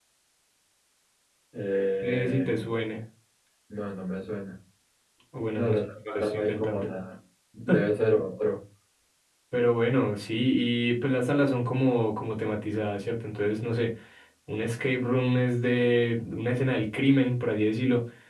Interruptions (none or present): present